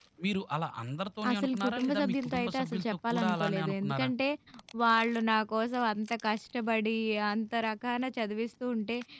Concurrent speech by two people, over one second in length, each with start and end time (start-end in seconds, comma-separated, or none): 1.3-4.1